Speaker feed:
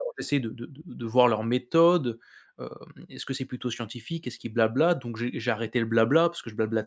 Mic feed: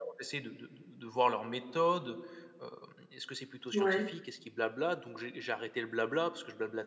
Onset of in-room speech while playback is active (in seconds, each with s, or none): 3.7 s